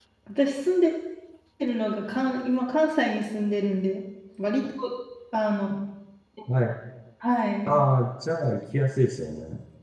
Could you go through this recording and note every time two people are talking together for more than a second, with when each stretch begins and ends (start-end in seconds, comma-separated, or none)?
none